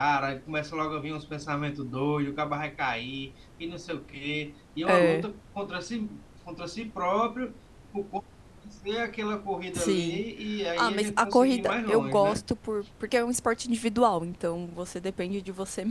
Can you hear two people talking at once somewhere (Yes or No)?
Yes